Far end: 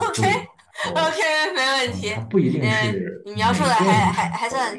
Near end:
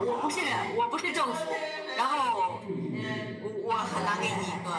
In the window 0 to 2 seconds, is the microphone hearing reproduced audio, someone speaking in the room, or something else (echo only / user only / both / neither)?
both